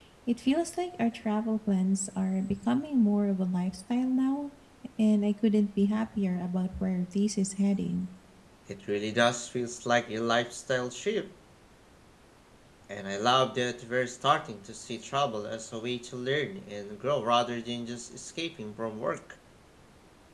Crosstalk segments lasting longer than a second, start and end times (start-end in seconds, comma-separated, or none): none